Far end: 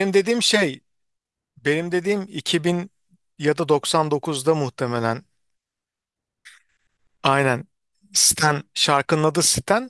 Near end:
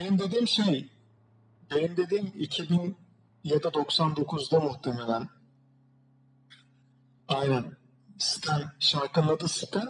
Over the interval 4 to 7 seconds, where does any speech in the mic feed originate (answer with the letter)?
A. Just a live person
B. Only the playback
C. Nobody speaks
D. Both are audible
B